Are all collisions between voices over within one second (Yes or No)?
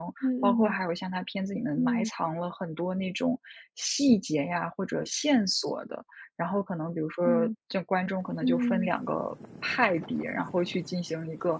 Yes